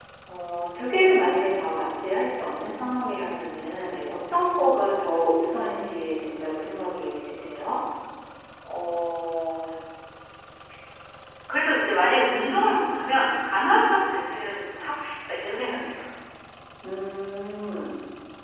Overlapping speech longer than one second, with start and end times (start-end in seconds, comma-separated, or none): none